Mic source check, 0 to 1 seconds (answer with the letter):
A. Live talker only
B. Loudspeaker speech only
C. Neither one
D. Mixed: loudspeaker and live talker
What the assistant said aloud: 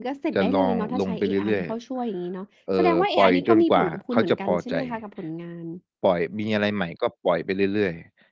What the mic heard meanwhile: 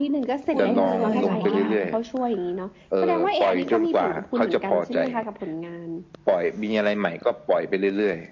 D